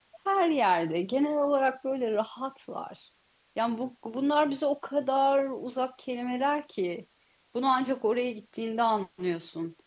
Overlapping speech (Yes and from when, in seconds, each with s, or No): No